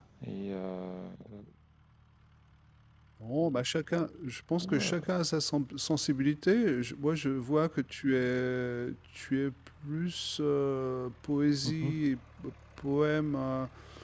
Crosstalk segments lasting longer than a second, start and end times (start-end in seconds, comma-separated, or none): none